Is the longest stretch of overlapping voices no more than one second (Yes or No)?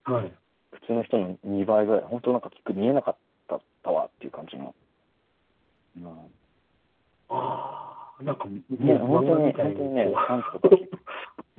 No